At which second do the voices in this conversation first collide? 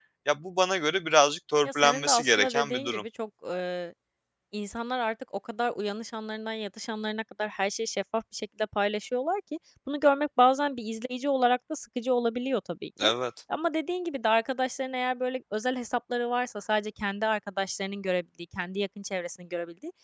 2 s

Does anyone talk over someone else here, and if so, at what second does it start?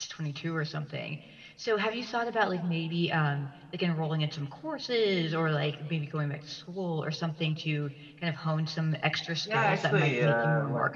9 s

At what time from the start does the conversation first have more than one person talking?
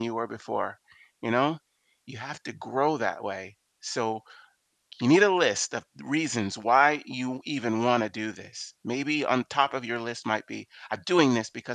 none

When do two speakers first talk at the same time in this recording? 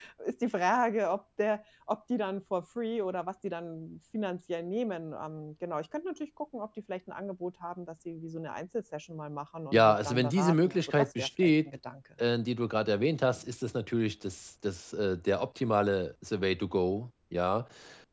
10 s

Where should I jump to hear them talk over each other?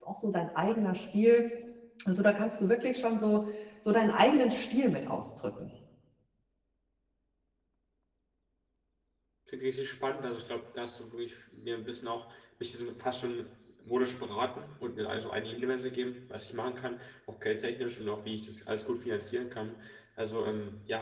none

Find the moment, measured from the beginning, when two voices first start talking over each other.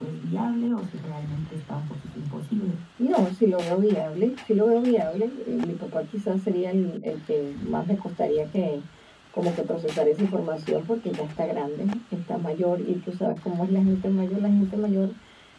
none

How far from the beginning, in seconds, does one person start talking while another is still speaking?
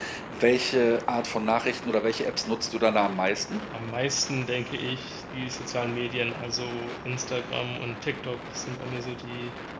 none

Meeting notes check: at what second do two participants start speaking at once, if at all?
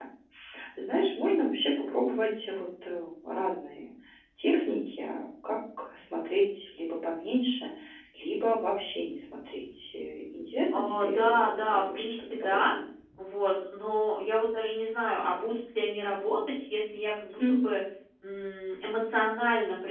11 s

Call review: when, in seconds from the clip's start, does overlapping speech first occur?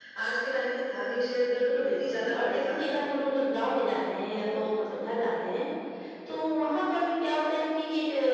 1 s

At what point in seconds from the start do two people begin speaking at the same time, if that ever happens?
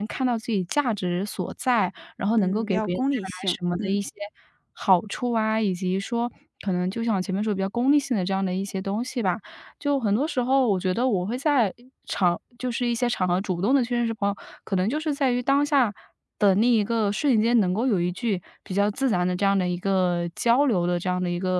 2 s

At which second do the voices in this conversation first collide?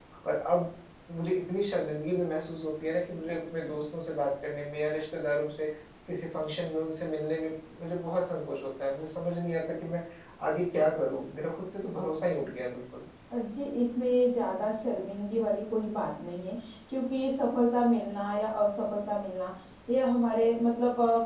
none

